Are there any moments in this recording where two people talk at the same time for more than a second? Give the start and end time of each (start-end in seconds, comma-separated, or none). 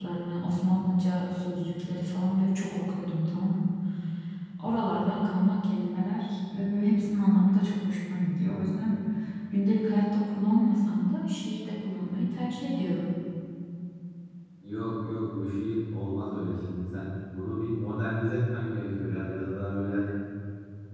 none